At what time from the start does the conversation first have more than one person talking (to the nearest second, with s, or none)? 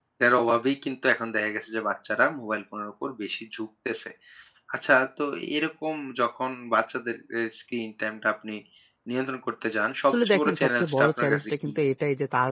10 s